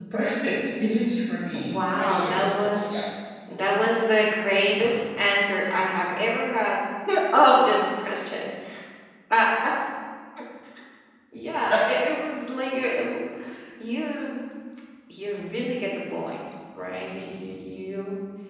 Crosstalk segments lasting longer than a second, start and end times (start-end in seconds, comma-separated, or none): 1.7-3.0